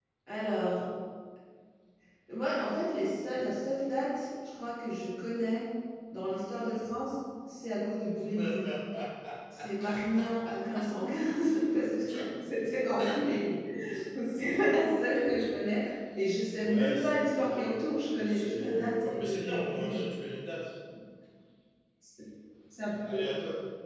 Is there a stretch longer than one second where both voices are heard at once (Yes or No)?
Yes